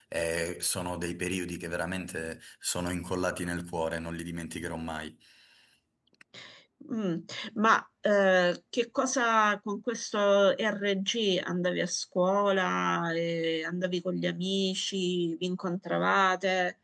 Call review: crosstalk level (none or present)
none